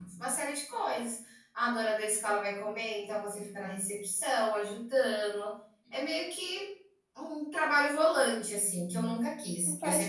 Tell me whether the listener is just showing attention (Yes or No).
Yes